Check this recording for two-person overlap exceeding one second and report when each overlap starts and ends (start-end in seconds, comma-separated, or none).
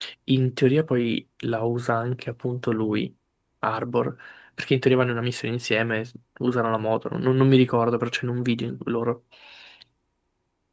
none